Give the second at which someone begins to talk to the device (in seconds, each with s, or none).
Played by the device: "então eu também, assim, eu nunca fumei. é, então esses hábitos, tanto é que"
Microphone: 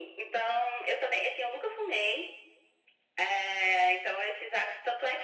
none